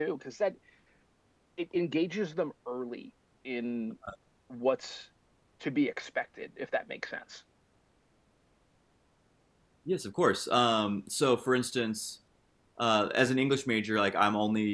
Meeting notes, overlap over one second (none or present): none